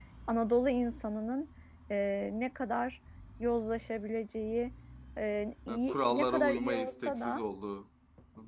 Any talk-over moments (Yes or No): Yes